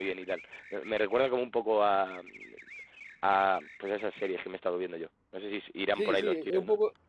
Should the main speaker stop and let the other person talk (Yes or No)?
Yes